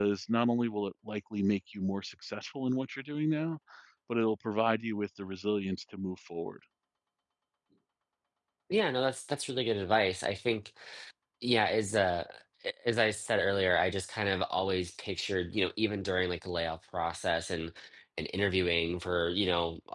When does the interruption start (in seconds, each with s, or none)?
none